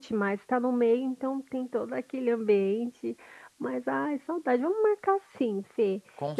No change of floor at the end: Yes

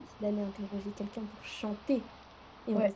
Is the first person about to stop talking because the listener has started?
No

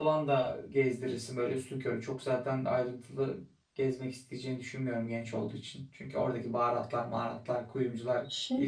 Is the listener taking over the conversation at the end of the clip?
Yes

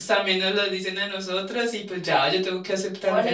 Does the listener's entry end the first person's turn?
Yes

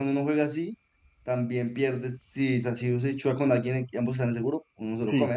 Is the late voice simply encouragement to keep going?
No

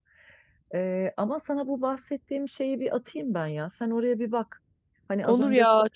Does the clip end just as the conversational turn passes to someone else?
Yes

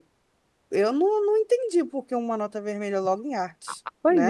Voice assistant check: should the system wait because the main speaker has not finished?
No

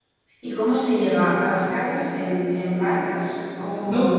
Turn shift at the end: Yes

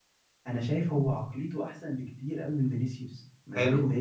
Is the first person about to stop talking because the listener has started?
Yes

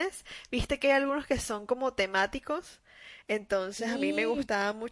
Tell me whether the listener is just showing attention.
Yes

